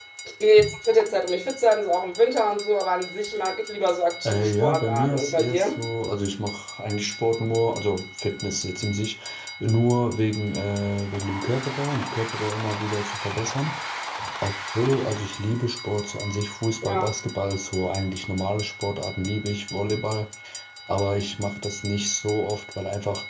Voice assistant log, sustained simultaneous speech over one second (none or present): present